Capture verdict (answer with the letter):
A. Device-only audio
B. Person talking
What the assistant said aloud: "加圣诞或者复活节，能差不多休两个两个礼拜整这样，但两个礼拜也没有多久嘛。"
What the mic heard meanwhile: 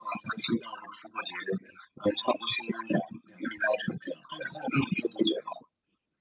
A